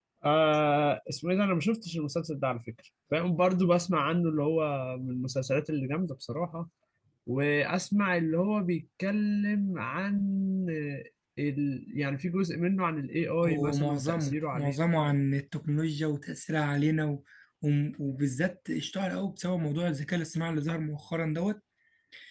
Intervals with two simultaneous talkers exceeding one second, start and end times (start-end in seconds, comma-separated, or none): 13.4-14.7